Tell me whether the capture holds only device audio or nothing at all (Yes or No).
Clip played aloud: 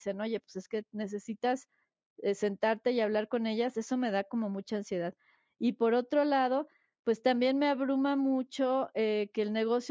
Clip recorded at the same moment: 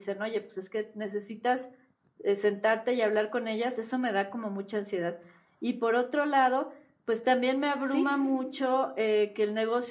No